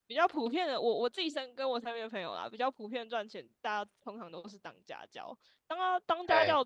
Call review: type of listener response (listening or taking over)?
listening